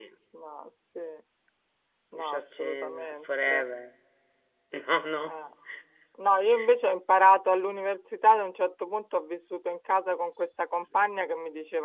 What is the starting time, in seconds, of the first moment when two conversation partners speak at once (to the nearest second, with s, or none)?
2 s